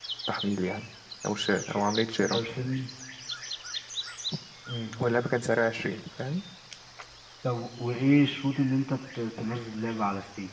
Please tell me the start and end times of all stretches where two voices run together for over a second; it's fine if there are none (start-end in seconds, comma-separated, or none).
none